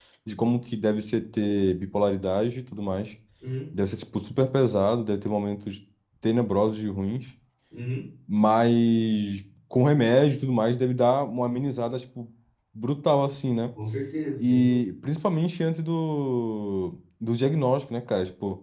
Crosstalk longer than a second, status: none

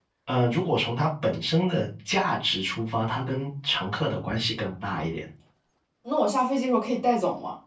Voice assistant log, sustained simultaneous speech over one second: none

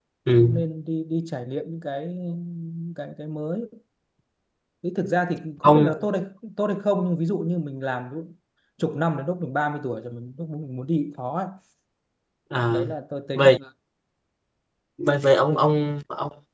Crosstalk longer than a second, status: none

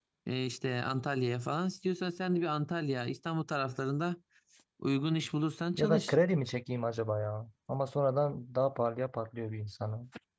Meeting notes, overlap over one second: none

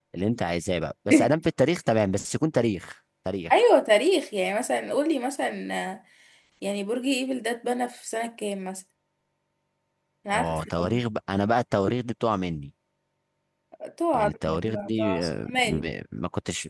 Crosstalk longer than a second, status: present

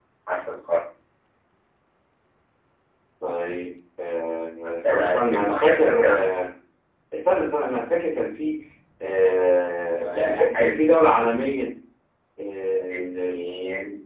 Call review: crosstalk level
present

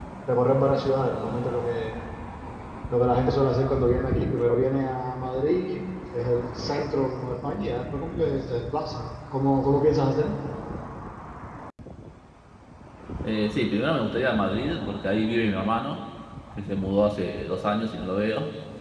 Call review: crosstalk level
none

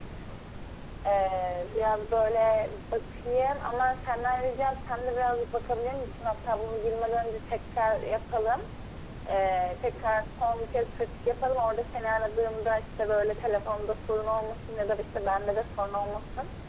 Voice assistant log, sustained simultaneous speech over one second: present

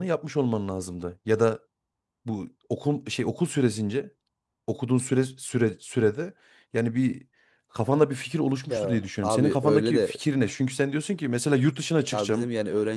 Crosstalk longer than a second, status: present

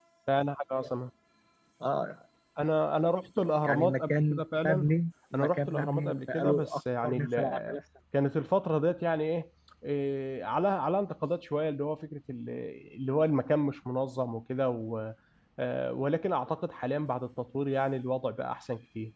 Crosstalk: present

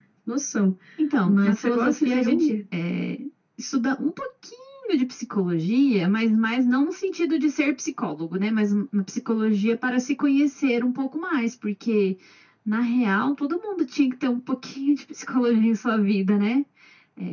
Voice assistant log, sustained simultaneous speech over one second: present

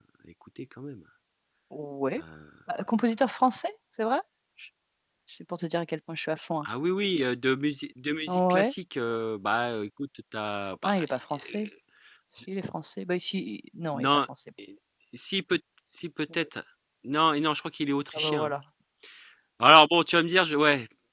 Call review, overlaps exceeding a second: none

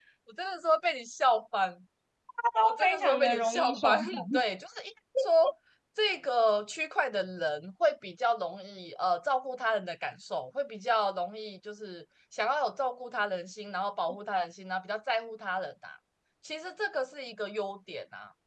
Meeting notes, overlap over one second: present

